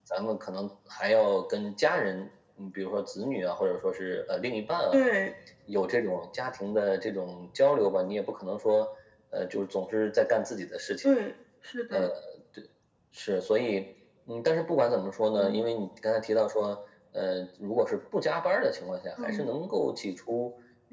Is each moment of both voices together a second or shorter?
Yes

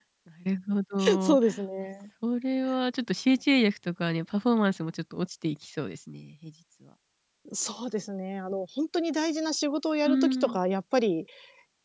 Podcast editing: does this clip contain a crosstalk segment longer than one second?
No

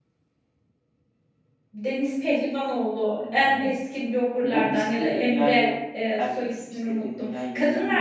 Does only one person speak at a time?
No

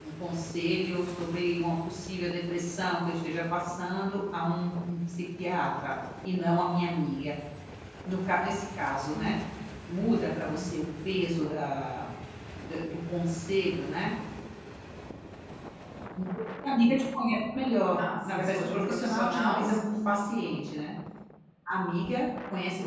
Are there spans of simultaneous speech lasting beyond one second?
Yes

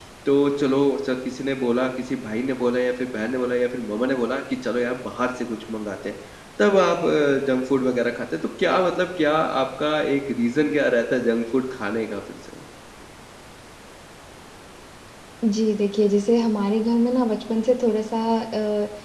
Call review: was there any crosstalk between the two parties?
No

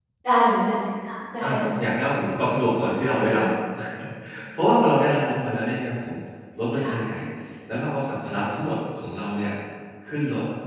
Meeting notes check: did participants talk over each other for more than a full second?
No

